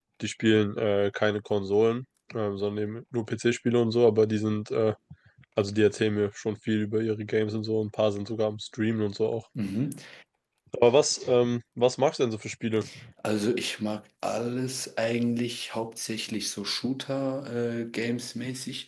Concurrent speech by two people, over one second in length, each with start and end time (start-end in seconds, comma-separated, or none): none